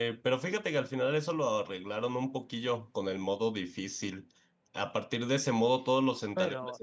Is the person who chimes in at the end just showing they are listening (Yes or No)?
Yes